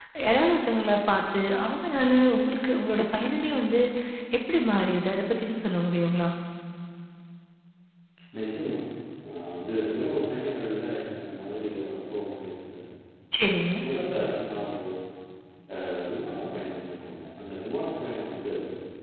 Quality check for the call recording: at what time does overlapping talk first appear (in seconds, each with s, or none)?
none